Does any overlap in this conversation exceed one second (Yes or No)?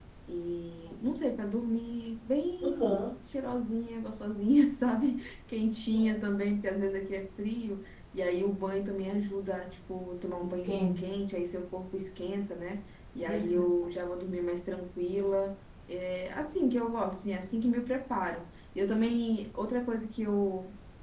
No